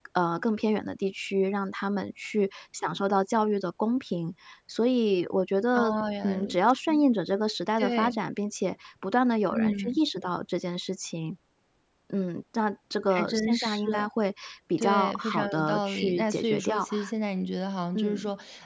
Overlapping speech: Yes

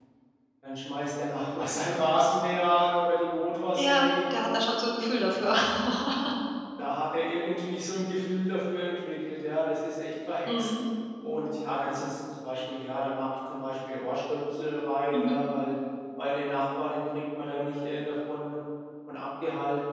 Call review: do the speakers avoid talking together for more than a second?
Yes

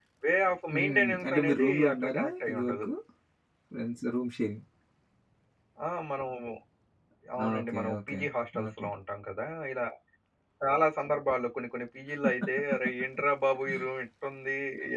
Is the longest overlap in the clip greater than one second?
Yes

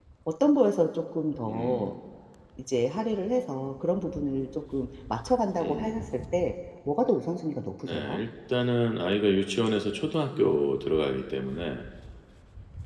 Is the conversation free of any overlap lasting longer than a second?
Yes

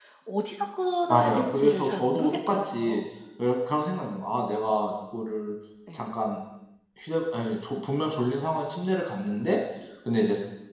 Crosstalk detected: Yes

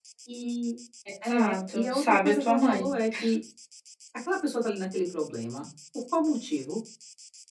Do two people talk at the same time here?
Yes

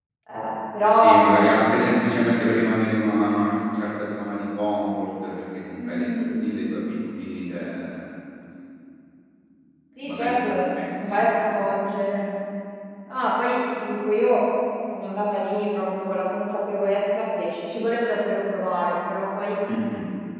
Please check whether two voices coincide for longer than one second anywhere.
Yes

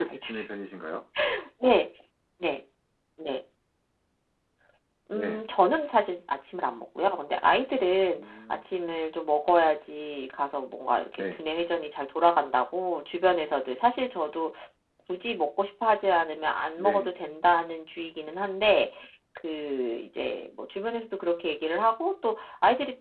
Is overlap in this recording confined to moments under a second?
Yes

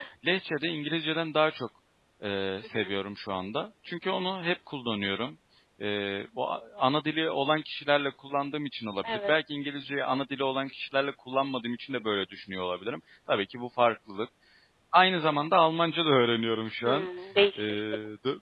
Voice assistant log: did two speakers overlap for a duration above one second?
No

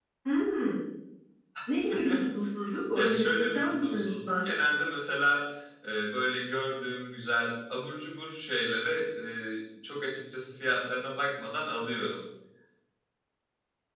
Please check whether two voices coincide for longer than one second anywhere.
Yes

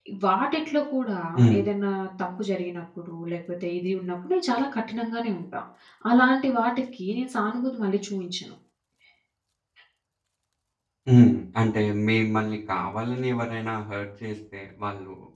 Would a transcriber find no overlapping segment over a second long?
Yes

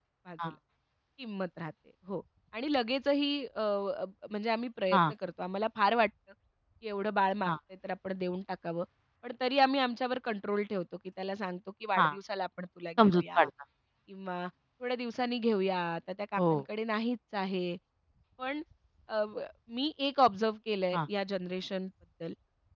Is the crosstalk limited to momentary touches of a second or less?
Yes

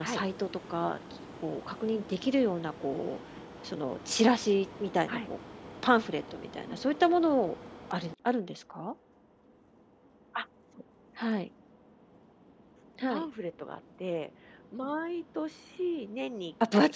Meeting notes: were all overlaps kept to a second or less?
Yes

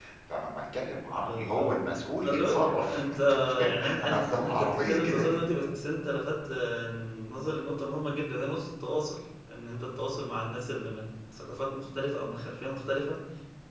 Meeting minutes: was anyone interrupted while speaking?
Yes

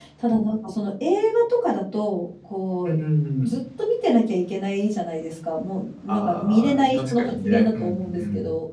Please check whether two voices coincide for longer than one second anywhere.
Yes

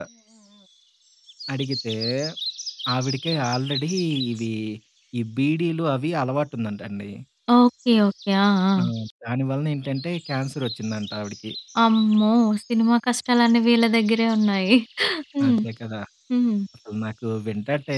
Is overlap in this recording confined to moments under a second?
Yes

